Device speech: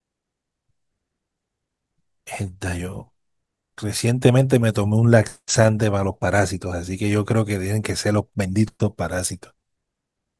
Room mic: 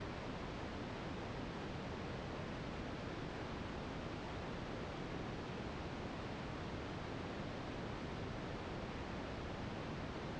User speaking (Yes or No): No